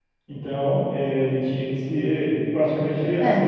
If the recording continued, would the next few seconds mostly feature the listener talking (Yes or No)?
No